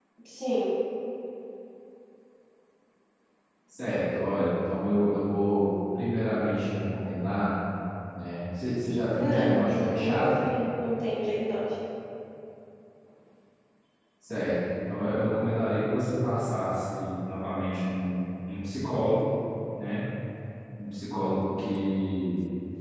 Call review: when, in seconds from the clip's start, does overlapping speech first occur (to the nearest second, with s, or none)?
9 s